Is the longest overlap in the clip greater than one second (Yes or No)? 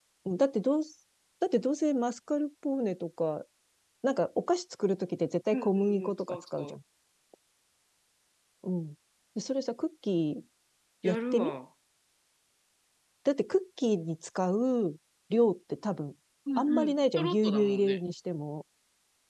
Yes